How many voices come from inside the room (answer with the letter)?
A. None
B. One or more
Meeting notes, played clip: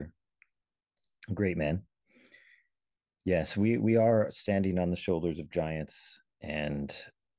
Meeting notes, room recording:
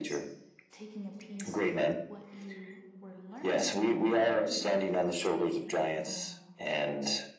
B